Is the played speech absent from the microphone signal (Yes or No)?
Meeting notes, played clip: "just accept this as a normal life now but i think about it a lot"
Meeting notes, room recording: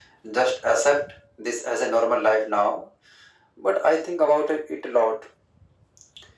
No